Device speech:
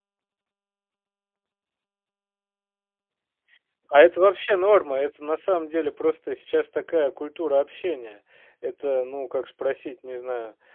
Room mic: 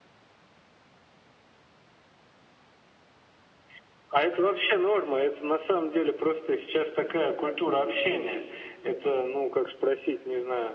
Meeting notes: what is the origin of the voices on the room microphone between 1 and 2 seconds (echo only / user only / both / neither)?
neither